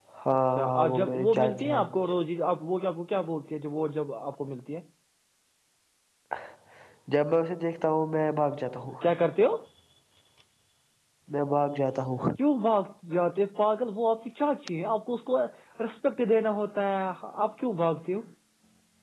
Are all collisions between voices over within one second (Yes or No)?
No